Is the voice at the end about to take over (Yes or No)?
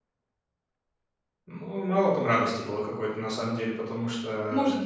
Yes